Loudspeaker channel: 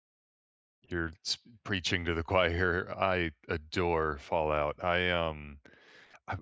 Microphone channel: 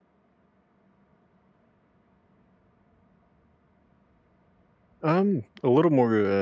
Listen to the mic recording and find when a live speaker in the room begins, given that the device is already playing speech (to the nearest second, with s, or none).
5 s